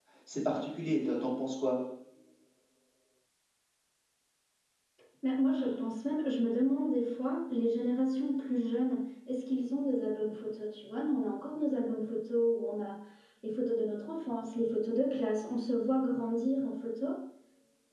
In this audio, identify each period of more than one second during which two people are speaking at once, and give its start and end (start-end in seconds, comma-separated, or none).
none